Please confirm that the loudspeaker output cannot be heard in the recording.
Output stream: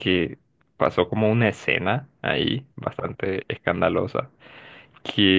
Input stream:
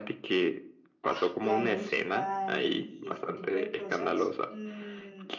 No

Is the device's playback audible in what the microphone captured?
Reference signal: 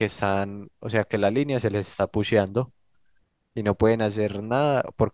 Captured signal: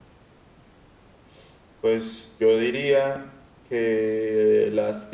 No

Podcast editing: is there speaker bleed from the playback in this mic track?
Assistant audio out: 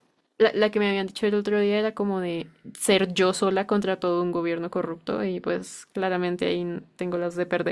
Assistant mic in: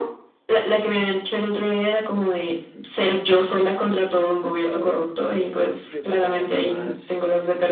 Yes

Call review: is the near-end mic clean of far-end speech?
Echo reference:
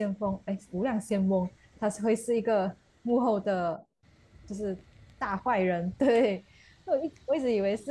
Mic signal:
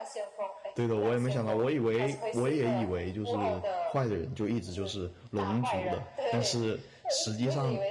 No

